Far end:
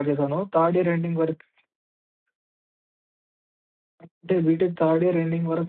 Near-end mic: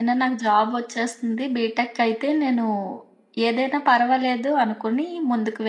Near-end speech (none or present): present